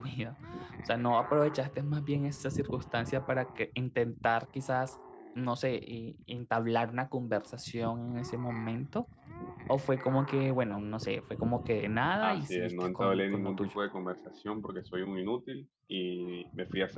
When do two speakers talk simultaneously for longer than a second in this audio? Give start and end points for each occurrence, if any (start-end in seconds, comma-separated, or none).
12.2-13.7